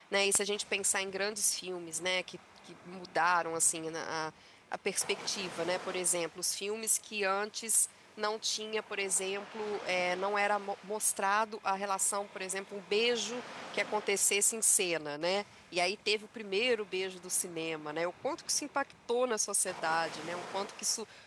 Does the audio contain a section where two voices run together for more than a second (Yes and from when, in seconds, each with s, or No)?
No